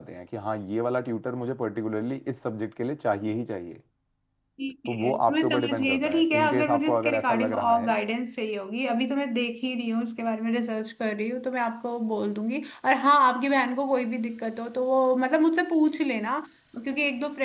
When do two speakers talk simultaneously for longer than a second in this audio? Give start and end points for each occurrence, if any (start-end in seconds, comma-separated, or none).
4.8-8.0